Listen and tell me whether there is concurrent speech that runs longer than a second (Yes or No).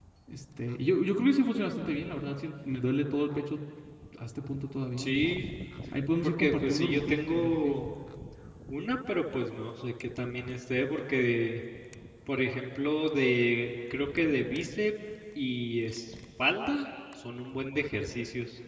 Yes